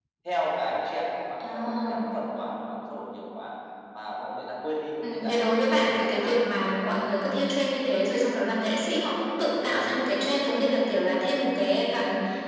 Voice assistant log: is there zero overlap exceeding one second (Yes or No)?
No